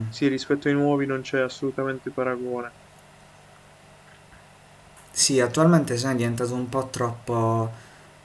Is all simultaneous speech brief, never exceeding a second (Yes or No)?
Yes